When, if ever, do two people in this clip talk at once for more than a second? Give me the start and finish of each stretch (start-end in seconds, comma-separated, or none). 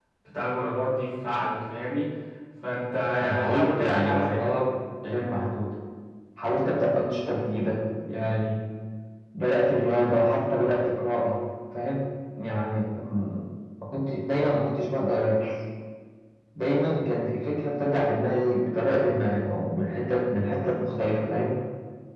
3.2-4.5